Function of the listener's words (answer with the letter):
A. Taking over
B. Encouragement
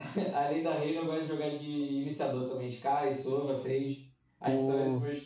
A